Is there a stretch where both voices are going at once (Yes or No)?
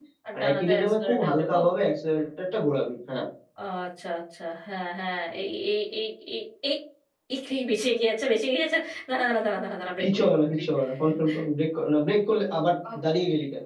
Yes